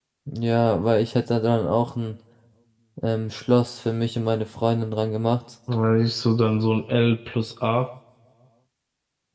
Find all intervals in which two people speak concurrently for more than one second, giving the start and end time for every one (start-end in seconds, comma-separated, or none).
none